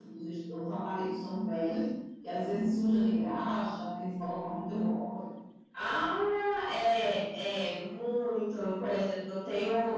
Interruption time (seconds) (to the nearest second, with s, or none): none